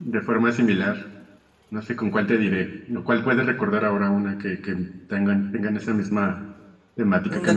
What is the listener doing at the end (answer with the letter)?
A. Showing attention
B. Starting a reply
B